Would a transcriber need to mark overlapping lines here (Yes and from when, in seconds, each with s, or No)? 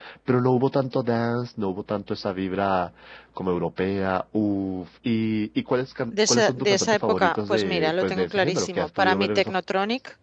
Yes, from 6.1 s